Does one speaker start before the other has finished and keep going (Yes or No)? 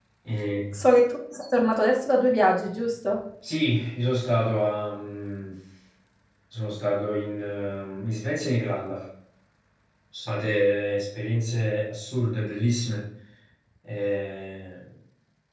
No